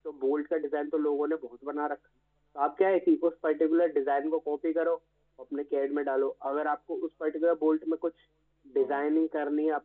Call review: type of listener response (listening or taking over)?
listening